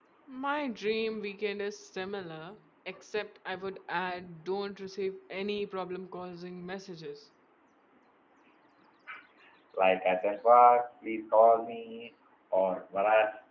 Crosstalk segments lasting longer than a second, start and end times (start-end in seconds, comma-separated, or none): none